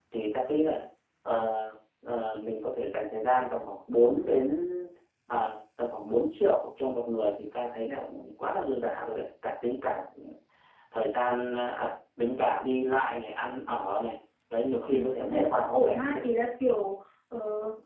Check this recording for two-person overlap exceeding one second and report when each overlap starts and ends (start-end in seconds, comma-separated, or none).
14.9-16.2